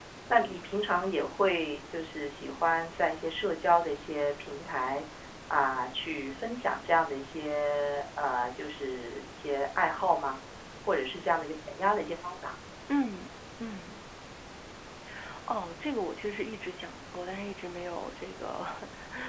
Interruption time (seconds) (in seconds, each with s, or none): none